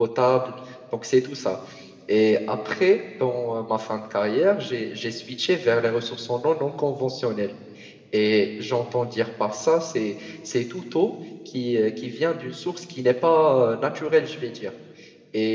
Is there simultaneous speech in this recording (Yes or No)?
No